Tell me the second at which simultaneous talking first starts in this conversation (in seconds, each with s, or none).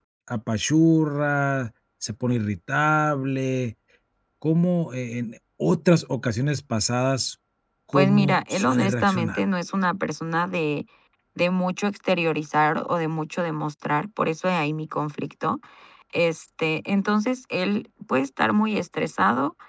7.9 s